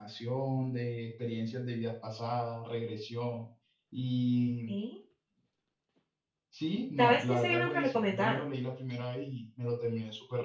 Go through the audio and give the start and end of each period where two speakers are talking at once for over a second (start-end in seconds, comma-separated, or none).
7.0-8.4